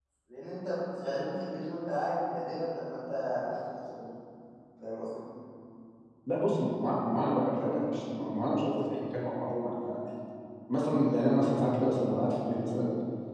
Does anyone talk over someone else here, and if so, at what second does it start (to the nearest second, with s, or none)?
none